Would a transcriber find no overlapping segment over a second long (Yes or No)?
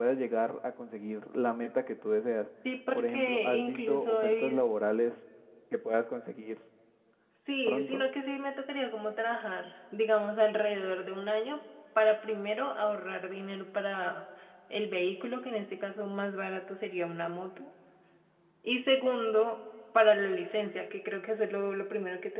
No